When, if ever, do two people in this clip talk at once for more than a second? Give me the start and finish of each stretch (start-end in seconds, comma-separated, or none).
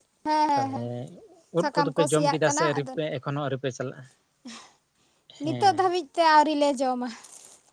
1.6-2.9